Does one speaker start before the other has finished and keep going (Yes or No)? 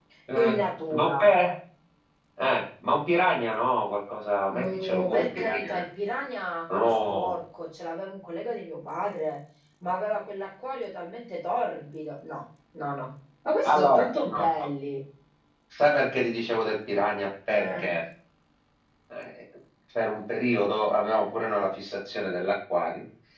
Yes